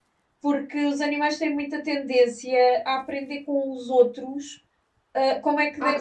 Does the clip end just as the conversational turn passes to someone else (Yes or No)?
Yes